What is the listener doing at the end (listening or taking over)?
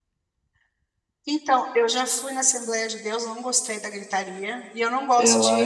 listening